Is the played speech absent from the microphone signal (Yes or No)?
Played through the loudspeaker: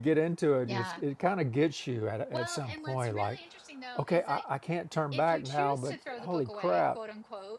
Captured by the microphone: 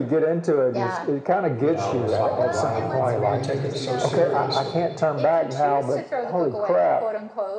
No